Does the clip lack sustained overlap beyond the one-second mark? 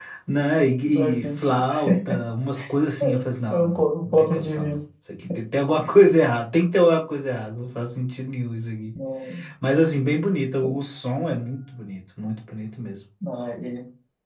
No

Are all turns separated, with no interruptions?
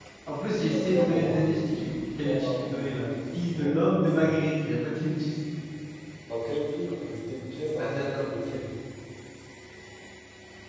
No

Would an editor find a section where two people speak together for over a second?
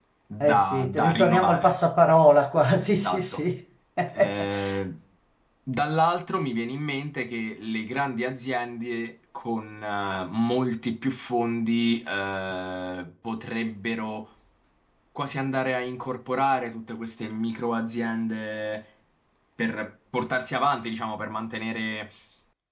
Yes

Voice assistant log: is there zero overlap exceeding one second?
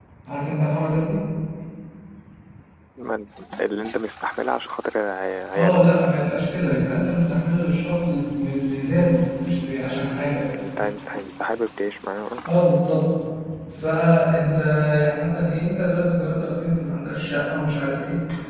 Yes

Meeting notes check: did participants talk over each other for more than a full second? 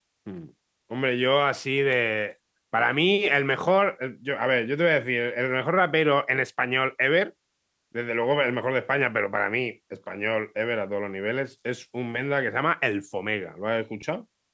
No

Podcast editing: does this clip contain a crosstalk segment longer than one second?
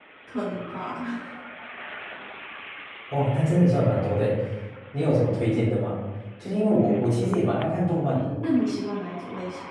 No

